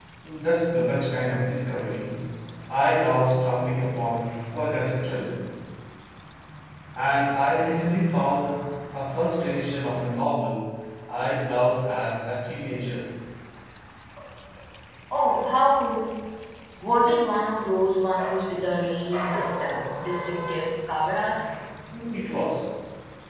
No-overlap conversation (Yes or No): Yes